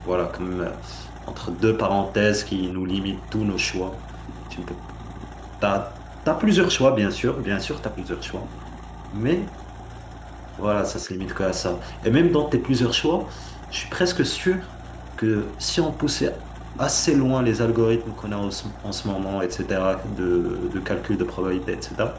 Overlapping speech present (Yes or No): No